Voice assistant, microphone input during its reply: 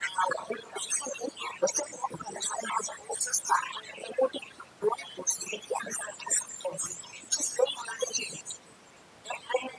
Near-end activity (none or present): none